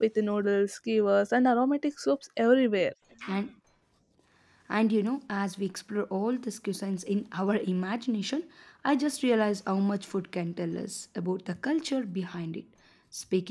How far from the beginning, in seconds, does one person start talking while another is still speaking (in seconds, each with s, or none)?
none